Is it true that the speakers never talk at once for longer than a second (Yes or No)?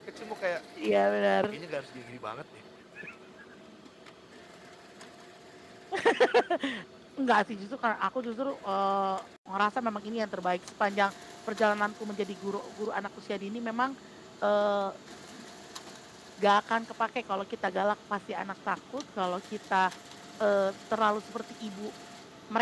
Yes